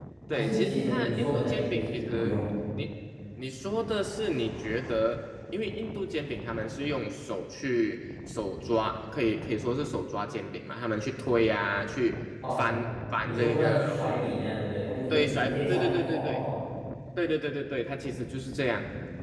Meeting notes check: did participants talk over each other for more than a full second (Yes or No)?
Yes